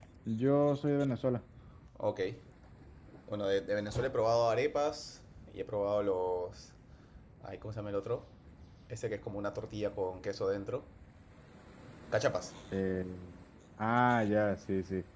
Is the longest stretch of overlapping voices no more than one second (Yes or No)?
Yes